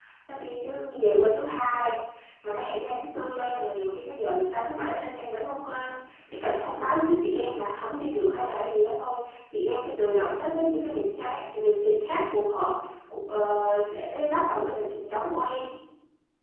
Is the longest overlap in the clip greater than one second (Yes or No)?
No